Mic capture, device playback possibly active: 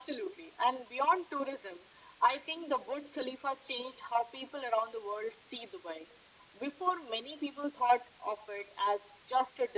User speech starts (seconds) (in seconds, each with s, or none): none